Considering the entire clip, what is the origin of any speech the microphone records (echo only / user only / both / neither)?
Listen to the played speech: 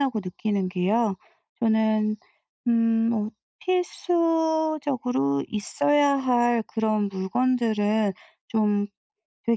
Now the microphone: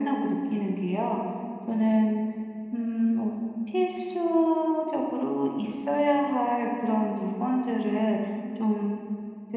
echo only